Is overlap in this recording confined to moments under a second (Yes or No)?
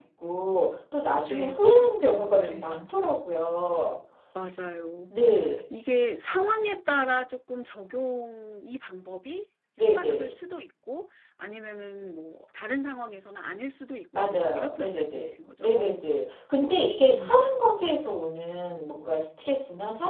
No